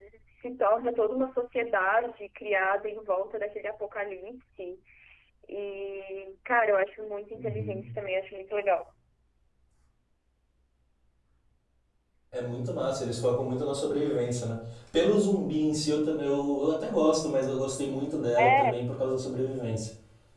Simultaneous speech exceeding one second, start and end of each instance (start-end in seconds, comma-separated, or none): none